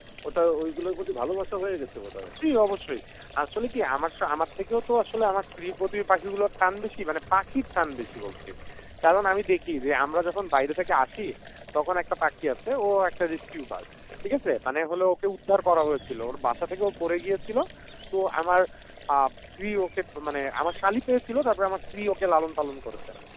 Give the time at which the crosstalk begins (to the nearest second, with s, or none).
none